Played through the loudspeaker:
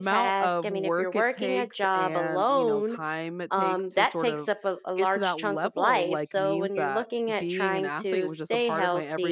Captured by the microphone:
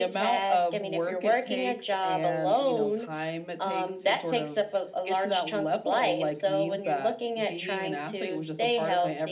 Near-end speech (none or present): none